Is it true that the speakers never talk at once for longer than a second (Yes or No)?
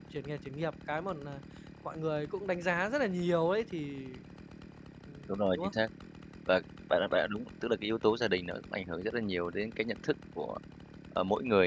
Yes